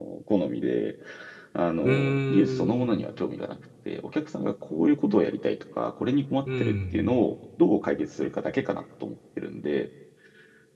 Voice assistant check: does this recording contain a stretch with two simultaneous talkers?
Yes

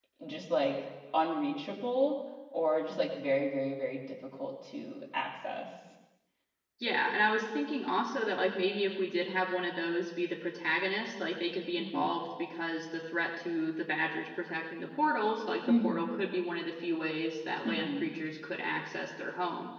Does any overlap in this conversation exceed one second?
No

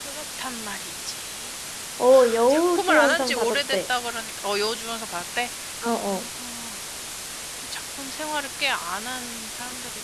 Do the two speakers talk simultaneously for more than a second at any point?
Yes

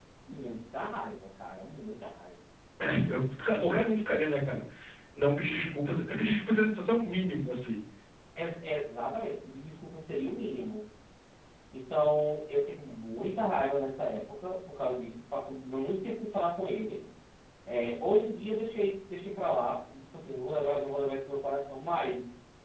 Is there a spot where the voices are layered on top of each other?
No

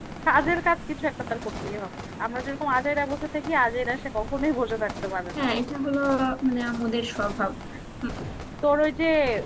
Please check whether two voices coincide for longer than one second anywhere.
No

